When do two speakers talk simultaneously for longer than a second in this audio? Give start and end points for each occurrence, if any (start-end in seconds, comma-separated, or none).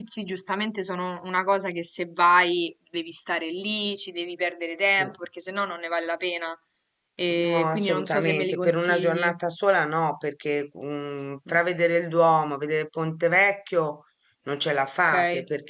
7.3-9.3